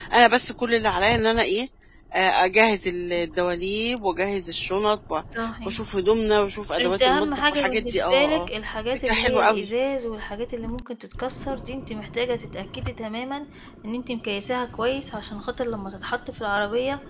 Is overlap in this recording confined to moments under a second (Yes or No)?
No